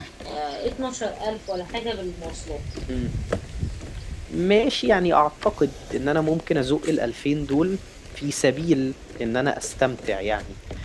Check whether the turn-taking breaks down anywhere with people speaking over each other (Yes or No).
No